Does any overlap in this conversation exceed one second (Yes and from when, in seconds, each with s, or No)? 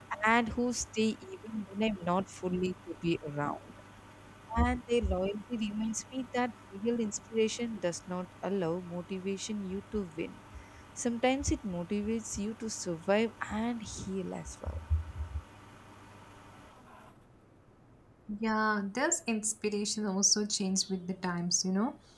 No